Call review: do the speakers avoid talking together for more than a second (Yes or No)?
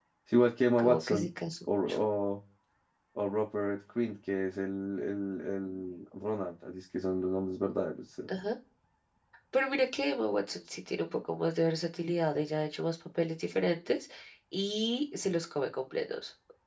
Yes